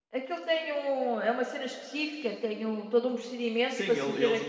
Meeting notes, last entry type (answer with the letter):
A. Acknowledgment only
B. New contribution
B